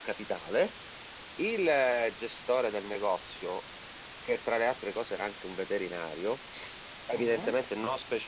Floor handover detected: No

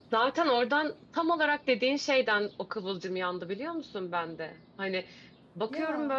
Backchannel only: Yes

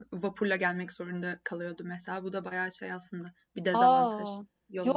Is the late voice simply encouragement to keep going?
No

